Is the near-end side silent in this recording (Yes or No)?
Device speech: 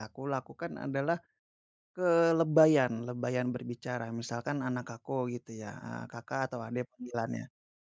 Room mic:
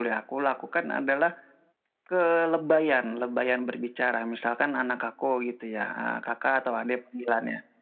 Yes